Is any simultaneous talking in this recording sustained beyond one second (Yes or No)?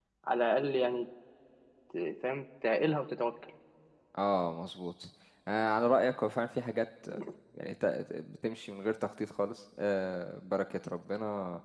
No